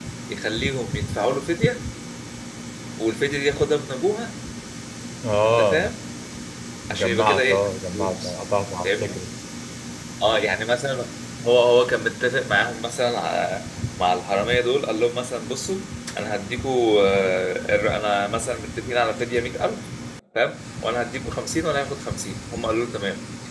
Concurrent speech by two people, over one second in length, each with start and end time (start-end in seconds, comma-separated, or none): 6.9-8.3